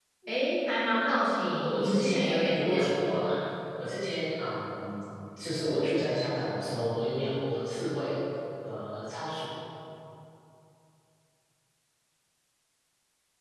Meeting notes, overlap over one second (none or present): present